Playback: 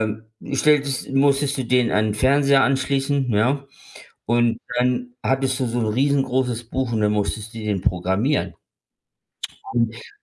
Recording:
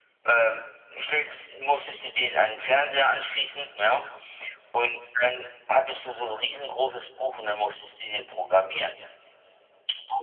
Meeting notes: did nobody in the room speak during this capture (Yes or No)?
Yes